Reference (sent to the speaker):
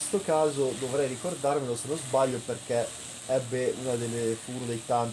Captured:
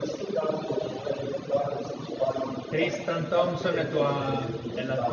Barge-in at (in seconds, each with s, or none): 2.7 s